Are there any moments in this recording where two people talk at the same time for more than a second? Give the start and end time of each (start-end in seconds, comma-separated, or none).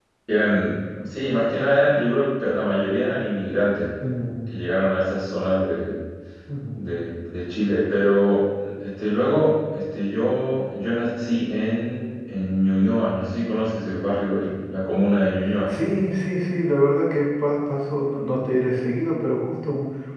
none